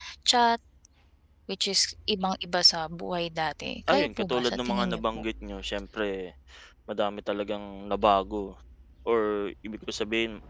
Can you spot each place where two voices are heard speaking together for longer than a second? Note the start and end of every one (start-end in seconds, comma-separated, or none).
3.9-5.2